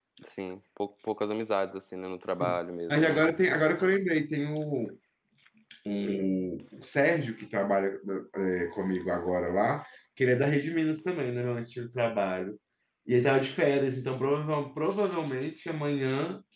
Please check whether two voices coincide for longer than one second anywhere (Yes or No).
No